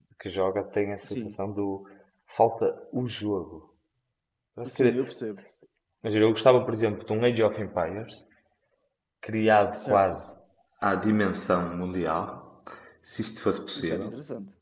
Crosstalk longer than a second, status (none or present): none